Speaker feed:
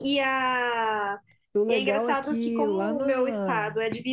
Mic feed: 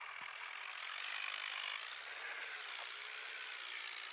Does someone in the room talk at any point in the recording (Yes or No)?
No